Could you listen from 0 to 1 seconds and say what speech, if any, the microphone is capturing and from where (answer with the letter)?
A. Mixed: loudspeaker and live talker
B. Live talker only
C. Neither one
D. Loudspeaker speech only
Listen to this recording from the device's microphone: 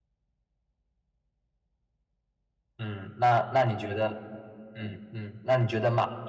C